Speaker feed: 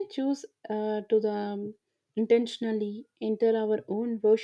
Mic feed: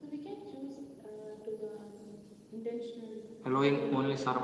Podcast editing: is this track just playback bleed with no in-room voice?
No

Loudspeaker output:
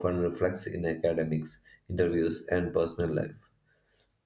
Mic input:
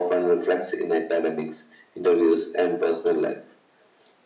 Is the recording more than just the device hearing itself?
No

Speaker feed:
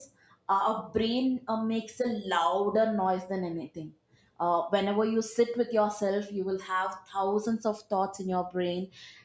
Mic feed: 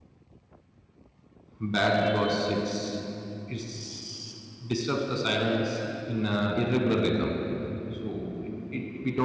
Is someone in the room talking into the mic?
Yes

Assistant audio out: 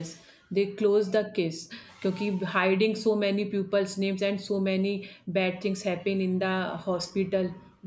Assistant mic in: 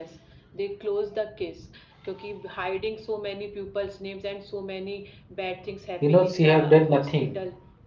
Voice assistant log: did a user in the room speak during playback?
Yes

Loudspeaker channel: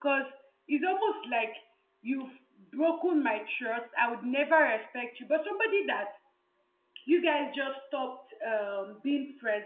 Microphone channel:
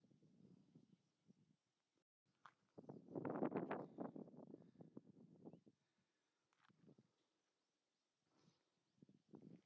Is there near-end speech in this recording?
No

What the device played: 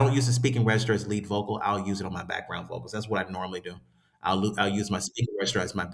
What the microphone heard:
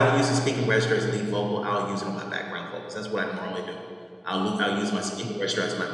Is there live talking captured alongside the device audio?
No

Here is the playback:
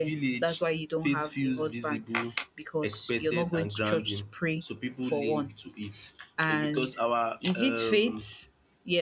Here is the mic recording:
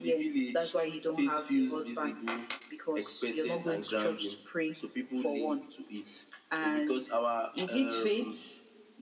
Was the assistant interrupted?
No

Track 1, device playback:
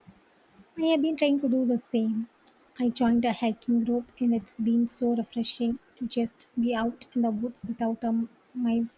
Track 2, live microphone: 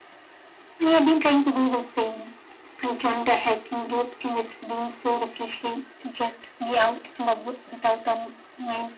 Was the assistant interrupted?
No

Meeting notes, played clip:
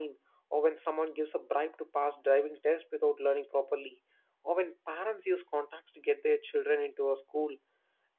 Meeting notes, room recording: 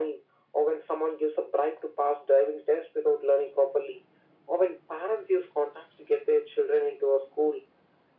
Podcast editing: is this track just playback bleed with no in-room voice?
Yes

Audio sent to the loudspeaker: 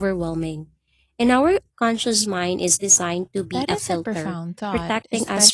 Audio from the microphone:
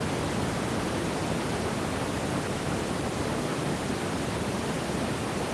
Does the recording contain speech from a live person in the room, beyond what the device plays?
No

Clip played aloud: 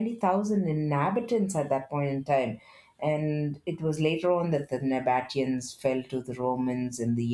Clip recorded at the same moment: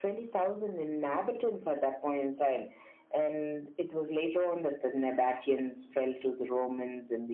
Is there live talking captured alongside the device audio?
No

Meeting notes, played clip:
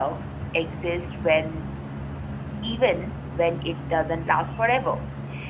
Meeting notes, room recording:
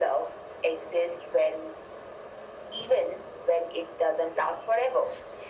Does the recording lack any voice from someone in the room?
Yes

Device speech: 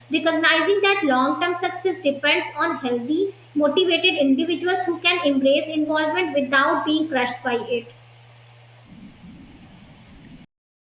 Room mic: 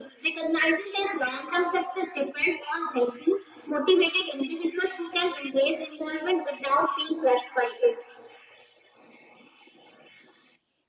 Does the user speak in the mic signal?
No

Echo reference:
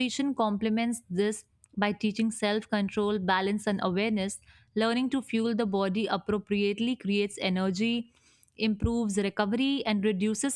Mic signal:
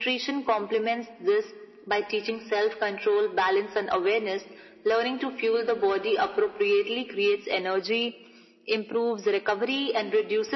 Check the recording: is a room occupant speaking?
No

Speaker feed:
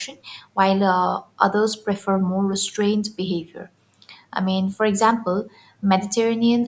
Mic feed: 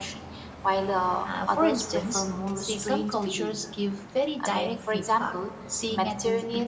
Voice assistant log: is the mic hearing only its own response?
No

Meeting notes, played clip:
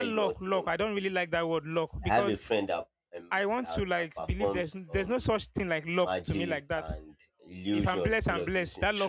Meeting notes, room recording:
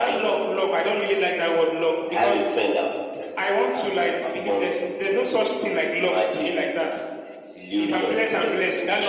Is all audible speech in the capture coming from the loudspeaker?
Yes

